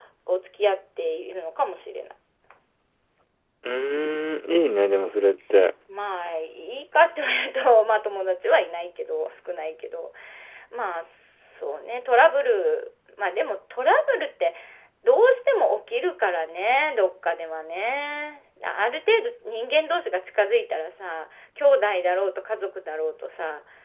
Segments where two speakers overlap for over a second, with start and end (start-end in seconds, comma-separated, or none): none